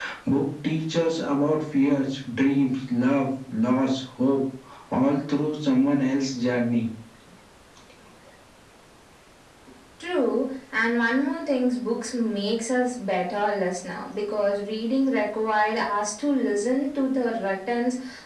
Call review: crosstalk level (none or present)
none